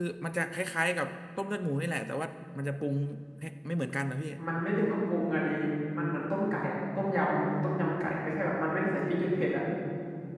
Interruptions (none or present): none